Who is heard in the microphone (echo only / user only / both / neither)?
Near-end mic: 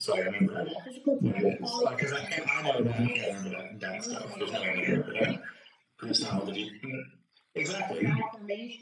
echo only